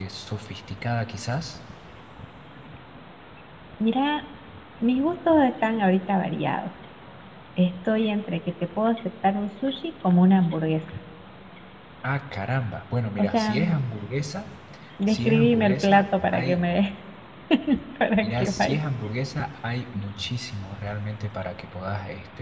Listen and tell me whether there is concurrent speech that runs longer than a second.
Yes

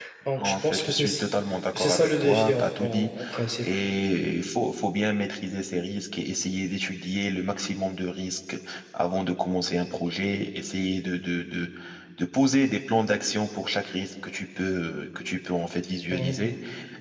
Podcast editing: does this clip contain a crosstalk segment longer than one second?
Yes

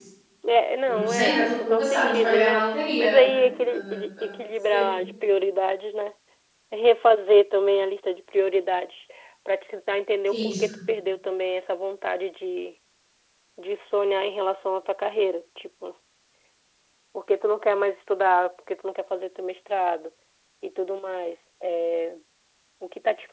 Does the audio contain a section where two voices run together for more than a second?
Yes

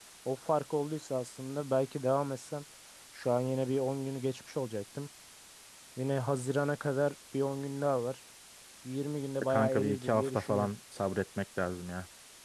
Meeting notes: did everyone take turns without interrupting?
No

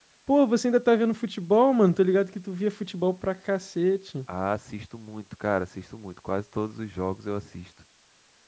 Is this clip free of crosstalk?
Yes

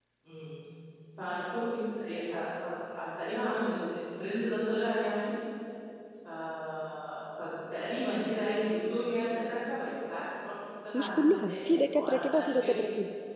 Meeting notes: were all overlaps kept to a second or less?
No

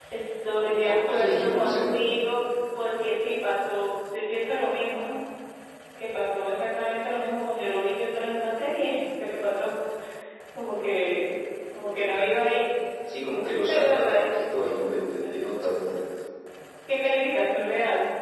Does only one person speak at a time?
No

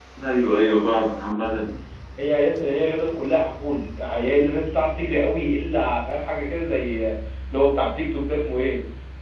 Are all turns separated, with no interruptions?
Yes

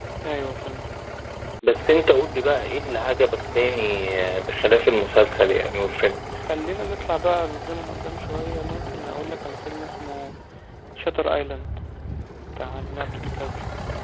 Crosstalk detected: No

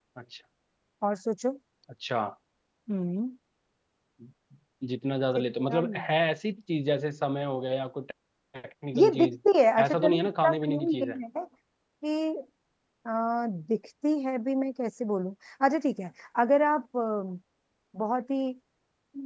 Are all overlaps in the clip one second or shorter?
No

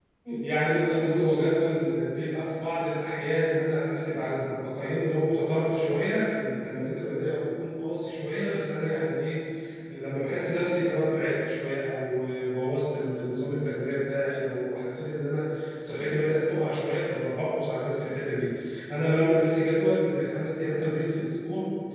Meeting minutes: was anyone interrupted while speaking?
No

